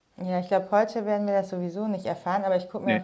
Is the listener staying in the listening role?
Yes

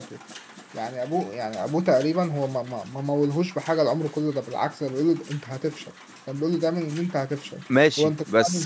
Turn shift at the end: Yes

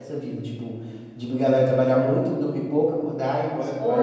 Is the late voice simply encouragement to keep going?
No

